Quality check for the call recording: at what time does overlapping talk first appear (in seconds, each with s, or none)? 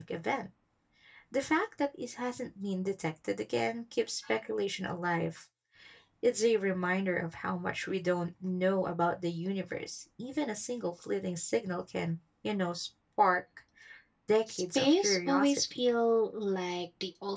14.5 s